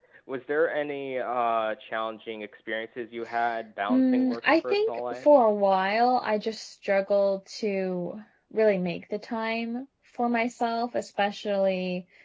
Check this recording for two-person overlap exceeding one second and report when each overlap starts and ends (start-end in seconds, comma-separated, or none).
3.9-5.3